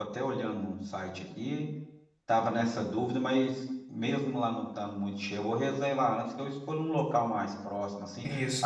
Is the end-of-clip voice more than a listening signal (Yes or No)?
No